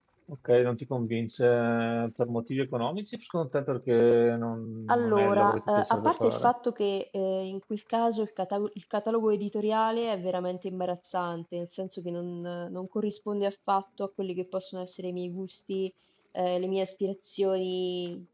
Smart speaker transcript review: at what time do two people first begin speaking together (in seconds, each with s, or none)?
4.9 s